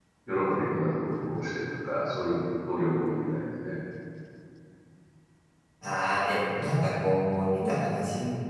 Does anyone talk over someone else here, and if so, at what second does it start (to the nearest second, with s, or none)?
none